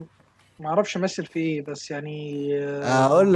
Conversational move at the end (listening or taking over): taking over